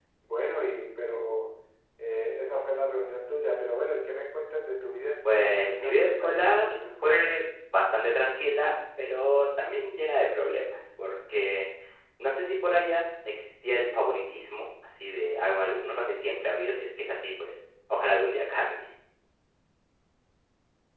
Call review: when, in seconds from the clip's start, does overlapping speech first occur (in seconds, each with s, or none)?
5.2 s